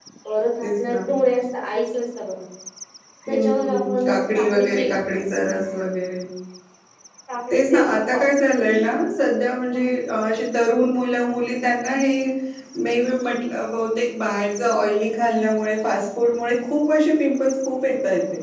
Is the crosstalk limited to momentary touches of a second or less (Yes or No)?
No